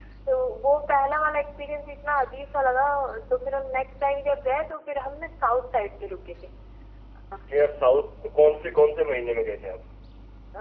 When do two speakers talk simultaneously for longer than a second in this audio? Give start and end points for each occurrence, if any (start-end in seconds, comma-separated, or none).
none